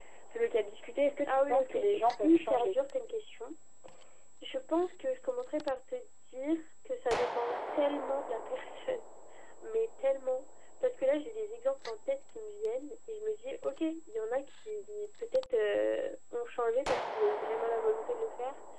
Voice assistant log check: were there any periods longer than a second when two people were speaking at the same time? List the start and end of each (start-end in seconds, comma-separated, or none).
1.3-2.8